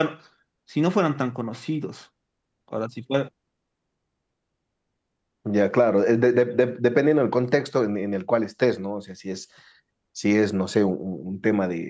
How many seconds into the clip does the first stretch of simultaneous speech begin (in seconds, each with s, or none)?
none